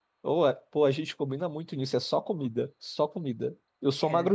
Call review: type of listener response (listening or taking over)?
listening